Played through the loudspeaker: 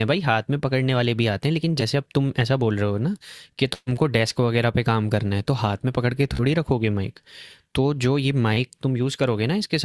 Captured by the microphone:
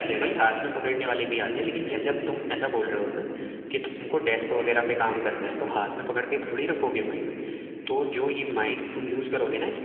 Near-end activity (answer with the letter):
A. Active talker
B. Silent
B